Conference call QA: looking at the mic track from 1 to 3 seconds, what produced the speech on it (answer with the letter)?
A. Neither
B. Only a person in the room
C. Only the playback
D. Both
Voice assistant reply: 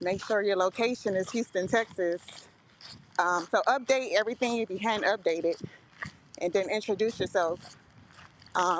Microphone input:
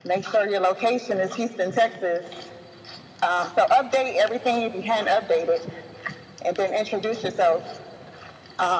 C